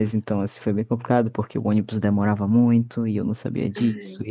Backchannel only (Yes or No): Yes